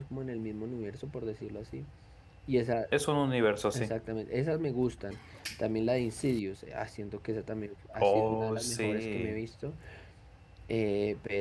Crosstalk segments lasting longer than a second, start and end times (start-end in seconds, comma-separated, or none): 8.0-9.4